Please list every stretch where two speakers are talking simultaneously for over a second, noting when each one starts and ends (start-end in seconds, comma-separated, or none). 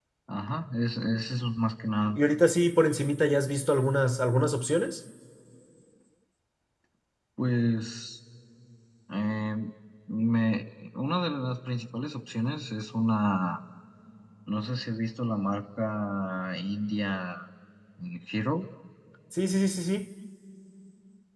none